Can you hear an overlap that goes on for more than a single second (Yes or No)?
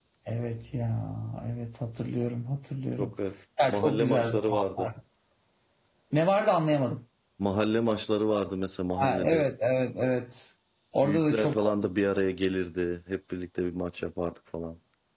Yes